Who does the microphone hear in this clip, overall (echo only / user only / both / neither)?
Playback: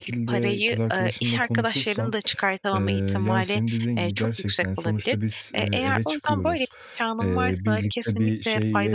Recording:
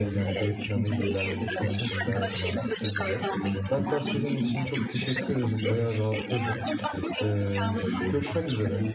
both